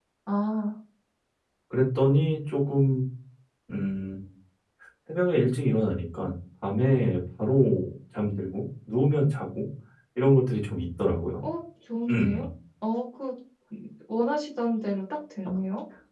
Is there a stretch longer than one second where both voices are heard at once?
No

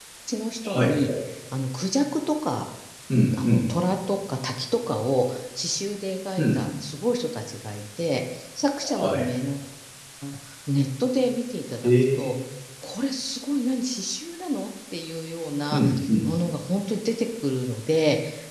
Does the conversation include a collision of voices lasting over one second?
No

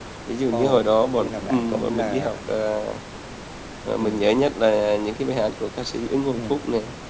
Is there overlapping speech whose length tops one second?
Yes, from 0.5 s

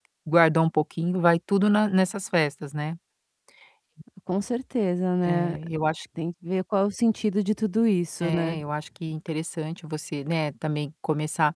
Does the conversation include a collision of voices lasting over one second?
No

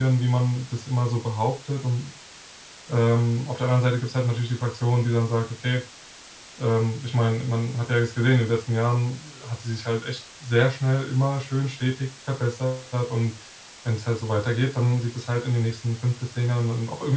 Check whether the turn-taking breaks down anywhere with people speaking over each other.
No

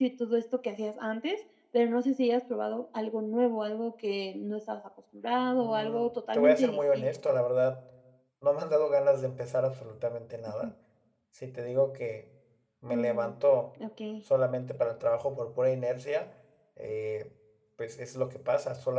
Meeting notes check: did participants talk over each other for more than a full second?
Yes, from 5.6 s

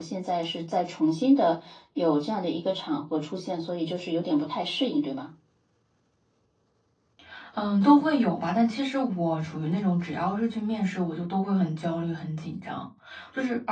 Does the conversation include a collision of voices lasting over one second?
No

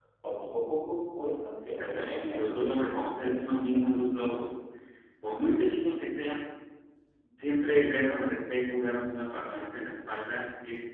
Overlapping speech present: Yes, from 1.6 s

